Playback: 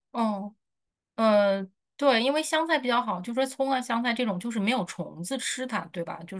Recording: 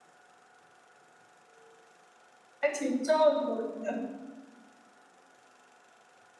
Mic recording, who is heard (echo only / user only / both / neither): user only